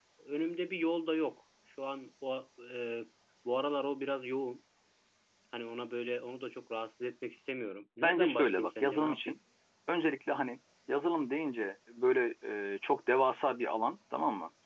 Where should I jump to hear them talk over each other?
8 s

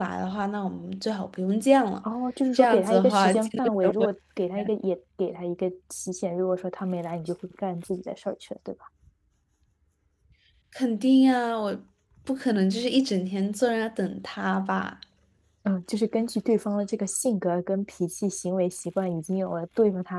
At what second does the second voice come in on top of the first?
3 s

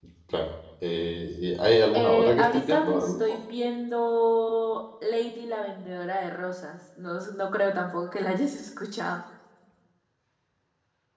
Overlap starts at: 2 s

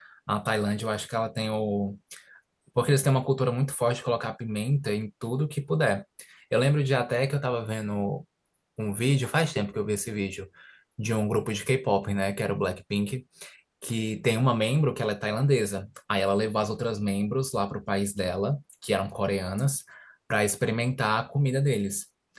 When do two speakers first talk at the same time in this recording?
none

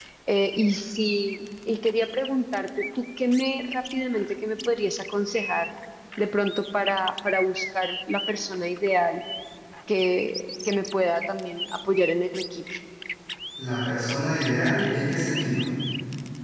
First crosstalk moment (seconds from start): none

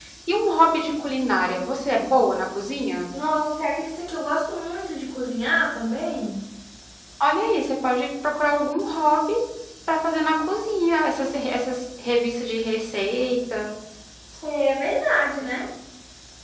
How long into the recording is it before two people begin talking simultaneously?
none

